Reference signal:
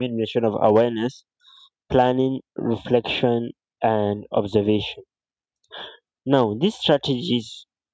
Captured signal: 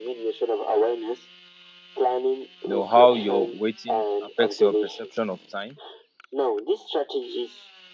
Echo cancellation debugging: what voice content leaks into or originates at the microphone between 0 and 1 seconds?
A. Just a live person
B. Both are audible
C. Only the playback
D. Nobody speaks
C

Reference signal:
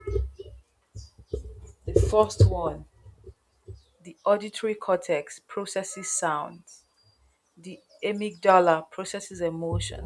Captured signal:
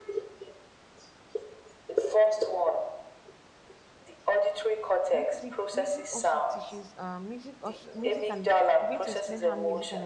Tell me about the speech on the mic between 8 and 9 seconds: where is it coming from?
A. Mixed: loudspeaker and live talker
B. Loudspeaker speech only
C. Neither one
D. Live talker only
A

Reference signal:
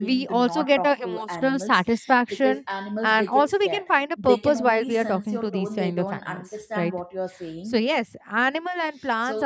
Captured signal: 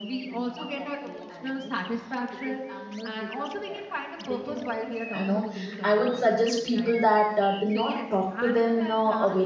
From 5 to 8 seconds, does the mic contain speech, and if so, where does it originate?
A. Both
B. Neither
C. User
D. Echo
A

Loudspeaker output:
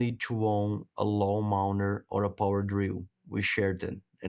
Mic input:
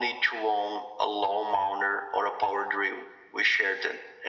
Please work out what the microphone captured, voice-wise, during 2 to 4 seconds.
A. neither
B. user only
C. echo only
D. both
C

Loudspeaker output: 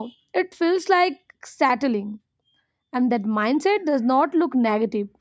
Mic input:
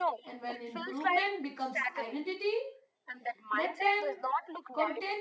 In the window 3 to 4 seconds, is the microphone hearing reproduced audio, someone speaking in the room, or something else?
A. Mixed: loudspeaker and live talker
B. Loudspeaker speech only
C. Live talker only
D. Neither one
A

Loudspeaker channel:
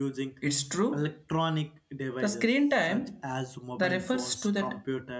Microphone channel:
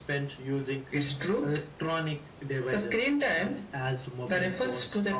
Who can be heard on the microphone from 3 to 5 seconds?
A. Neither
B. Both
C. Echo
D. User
C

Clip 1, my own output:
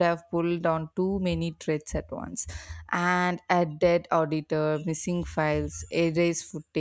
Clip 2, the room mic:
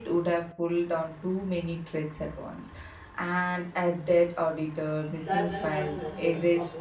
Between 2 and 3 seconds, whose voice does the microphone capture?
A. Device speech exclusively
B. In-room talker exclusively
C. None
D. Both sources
A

